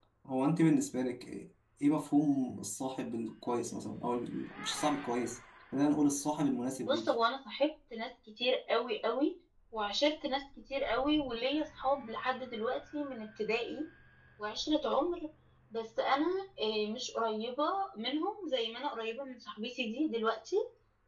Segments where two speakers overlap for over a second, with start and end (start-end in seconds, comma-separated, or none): none